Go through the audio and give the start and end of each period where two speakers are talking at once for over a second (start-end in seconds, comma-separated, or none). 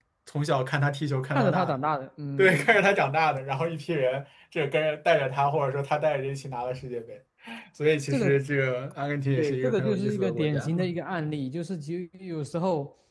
9.4-10.7